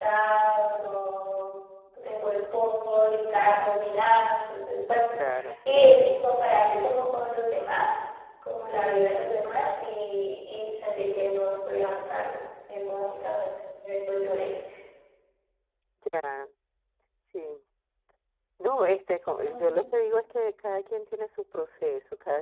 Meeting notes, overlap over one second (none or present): none